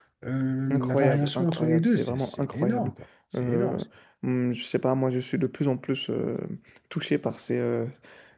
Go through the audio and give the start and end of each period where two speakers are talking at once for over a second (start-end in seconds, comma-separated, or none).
0.7-2.9